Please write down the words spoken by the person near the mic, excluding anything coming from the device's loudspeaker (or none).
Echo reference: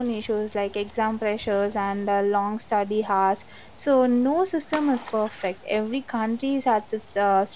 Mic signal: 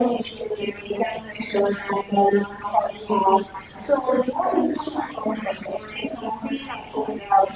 none